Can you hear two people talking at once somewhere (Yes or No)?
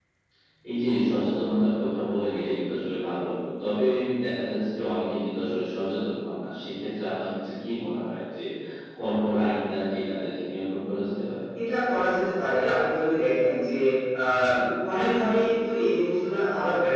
No